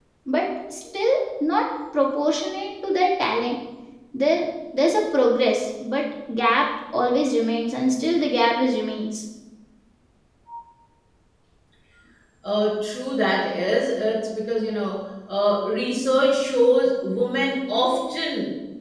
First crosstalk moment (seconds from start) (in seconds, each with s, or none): none